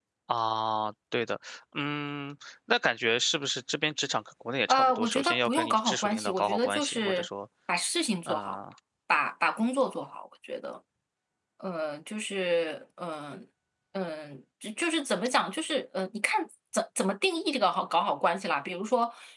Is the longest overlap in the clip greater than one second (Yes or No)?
Yes